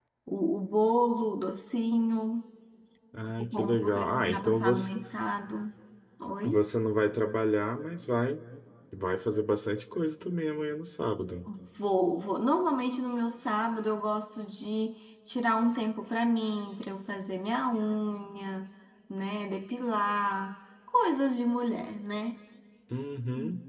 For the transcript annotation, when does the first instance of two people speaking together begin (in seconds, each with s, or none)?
3.4 s